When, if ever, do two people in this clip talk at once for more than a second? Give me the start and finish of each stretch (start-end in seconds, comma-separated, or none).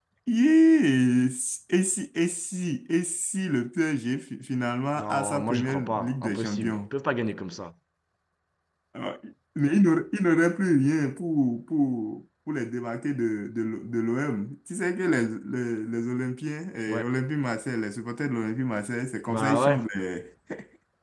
5.0-6.8